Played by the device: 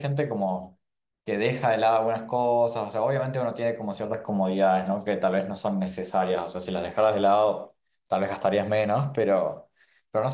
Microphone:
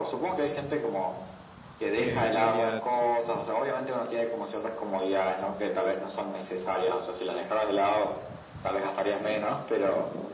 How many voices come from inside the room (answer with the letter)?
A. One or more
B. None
A